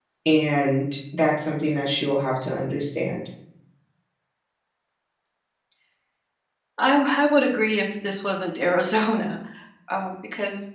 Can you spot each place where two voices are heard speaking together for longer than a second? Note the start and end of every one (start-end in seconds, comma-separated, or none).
none